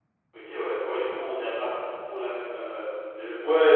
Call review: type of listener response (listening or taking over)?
taking over